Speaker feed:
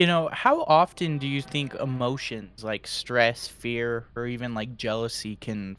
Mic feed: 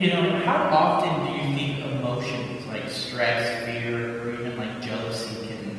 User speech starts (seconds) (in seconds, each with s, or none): none